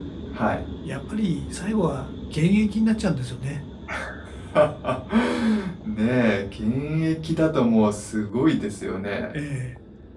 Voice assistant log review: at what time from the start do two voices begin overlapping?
none

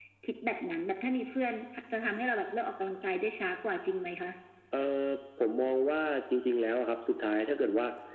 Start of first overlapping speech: none

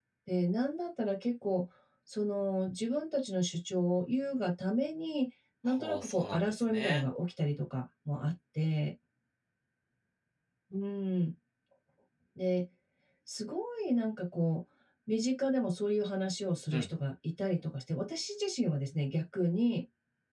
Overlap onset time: 5.7 s

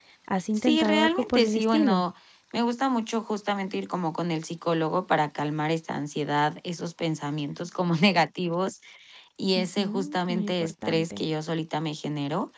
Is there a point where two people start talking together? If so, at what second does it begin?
0.6 s

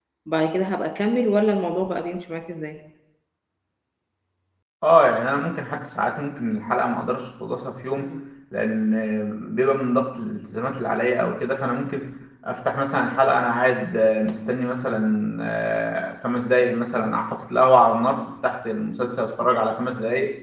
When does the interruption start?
none

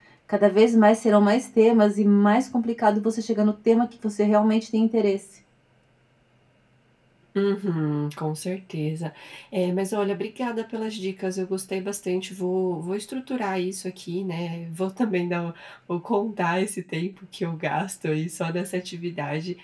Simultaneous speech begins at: none

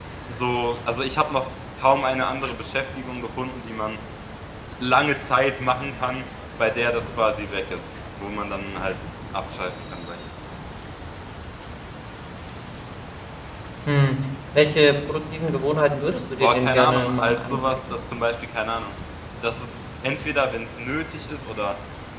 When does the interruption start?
16.4 s

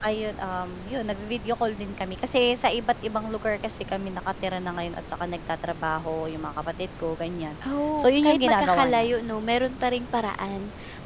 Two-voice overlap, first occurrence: 8.0 s

